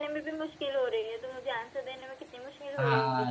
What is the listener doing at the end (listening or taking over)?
taking over